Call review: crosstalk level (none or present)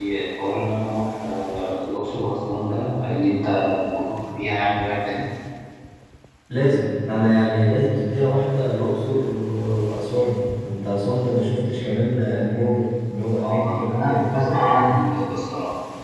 present